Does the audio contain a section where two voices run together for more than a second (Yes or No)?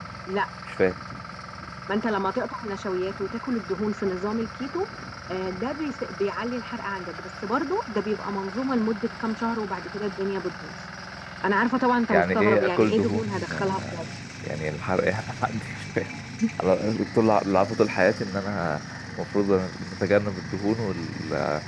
Yes